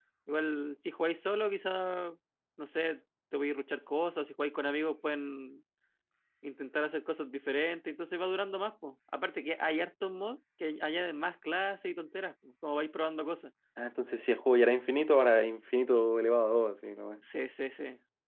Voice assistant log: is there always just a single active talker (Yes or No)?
Yes